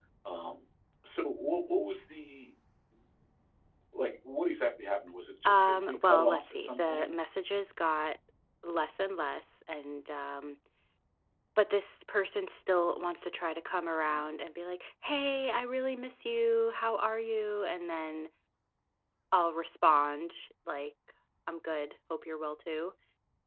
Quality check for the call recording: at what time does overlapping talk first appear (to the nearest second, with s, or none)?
5 s